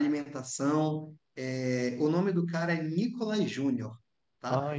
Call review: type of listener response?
listening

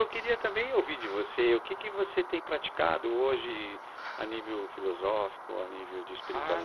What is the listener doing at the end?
taking over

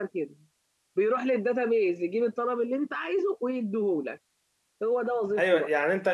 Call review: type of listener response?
taking over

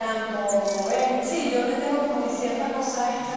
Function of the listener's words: taking over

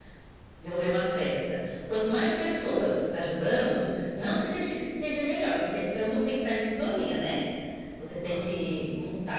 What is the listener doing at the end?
listening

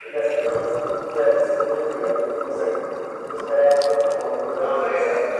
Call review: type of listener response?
taking over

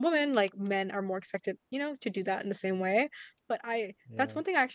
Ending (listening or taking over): listening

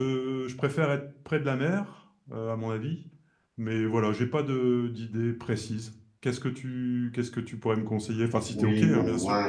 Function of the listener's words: taking over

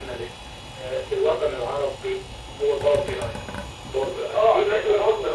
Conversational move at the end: taking over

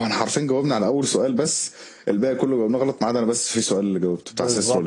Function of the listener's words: taking over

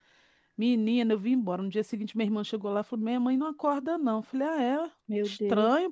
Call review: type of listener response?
listening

